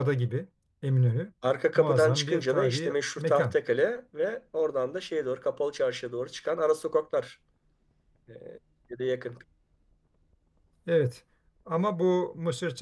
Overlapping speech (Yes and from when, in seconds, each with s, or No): Yes, from 1.8 s